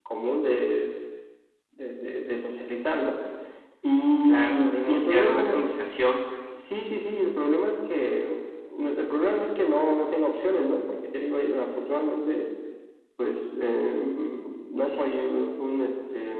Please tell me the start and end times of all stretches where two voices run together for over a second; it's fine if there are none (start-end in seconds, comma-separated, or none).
4.2-5.6